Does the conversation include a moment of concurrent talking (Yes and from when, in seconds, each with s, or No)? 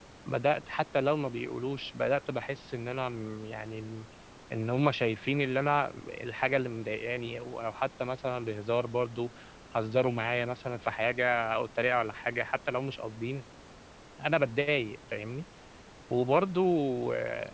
No